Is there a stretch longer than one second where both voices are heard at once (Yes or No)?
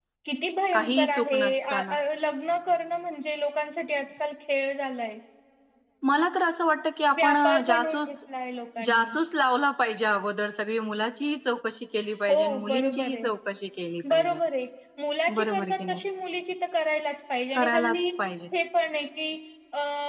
Yes